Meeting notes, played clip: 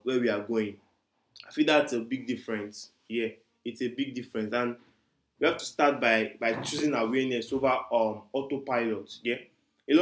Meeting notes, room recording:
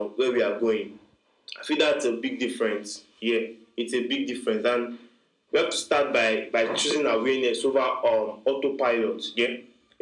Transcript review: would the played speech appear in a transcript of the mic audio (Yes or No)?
Yes